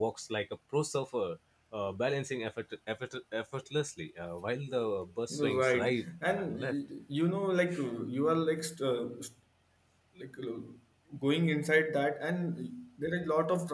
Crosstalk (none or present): present